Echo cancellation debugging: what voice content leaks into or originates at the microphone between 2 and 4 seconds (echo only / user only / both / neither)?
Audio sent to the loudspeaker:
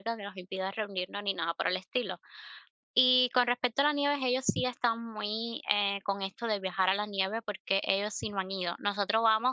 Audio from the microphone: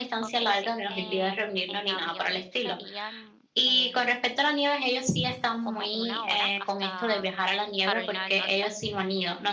both